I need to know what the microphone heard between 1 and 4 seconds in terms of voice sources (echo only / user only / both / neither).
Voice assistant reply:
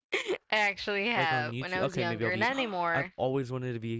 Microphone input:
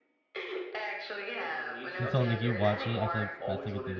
both